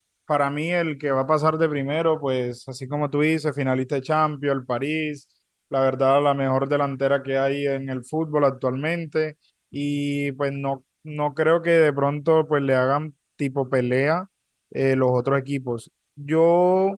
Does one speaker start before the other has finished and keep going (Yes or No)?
No